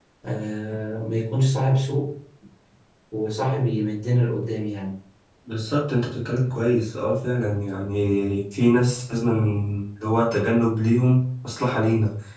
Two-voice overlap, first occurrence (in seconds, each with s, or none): none